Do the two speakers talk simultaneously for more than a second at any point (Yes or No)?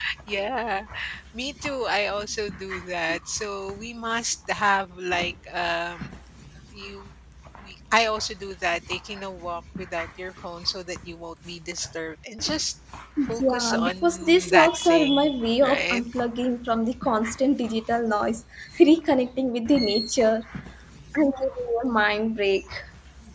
Yes